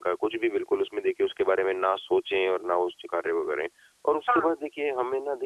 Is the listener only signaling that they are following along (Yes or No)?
Yes